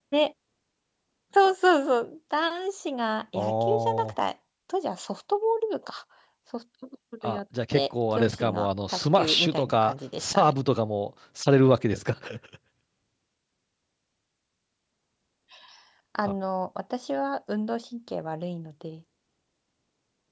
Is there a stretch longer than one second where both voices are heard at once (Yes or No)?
Yes